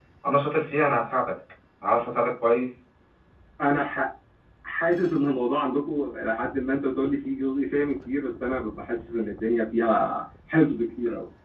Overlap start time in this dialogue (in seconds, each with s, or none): none